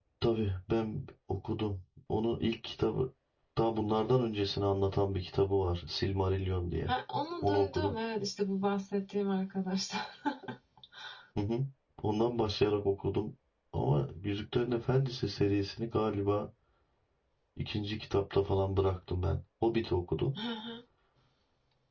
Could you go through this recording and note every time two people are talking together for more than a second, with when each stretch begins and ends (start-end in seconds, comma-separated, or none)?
none